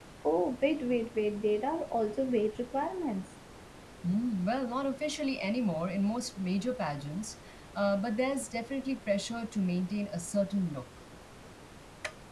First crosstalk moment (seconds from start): none

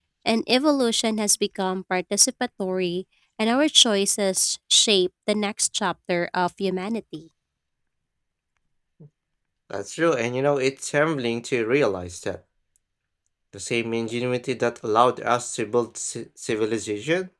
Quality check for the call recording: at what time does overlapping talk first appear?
none

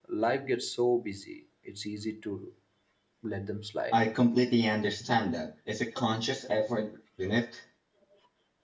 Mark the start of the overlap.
none

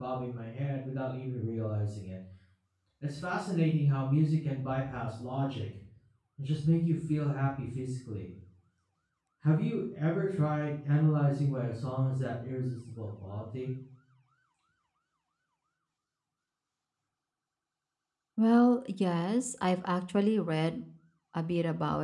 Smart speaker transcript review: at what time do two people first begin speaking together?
none

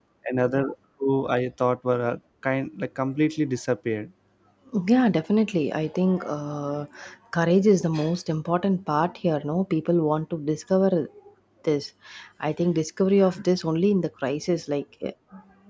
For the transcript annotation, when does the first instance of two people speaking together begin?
none

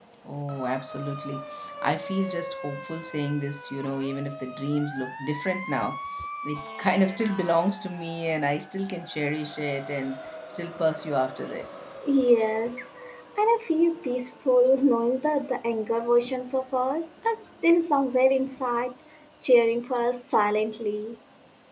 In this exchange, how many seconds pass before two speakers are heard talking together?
none

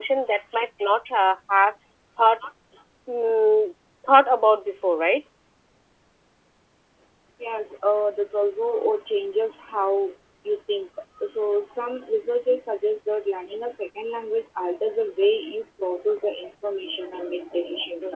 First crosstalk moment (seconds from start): none

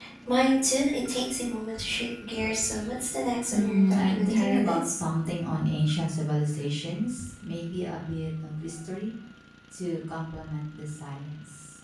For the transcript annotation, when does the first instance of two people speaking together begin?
4 s

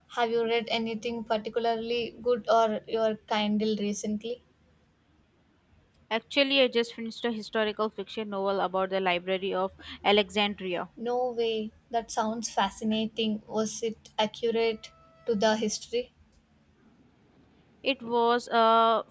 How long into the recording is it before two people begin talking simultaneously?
none

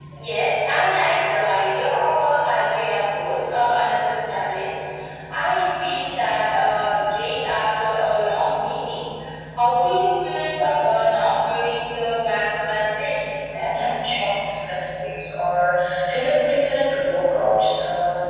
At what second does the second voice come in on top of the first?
none

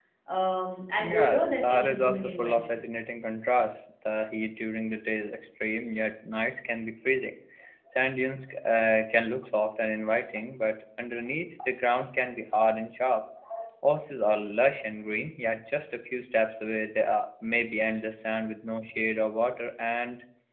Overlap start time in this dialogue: 1 s

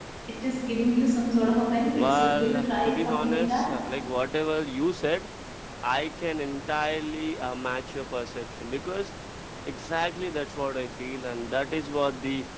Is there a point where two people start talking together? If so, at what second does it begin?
2 s

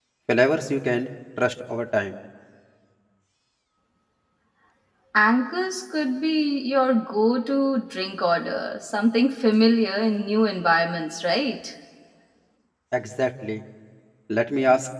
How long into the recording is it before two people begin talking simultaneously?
none

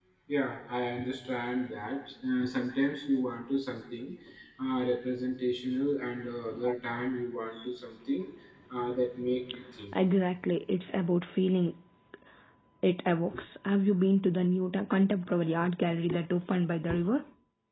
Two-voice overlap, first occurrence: none

